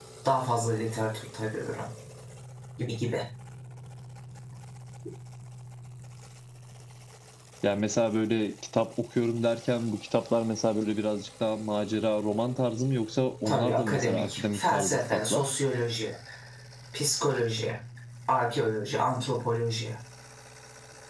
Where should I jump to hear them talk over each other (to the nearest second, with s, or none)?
13 s